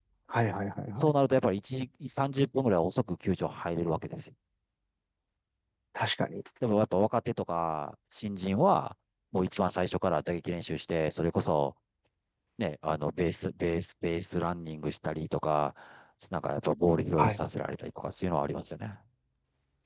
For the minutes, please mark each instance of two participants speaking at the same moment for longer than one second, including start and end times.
none

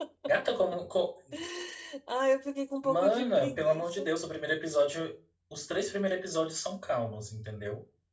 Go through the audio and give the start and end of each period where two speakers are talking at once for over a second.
2.8-4.1

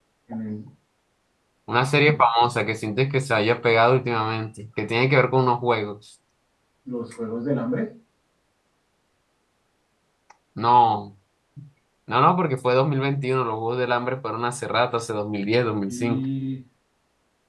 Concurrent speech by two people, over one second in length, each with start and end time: none

